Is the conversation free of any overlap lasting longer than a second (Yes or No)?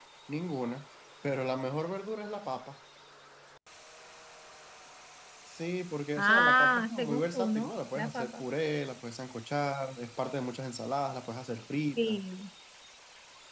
No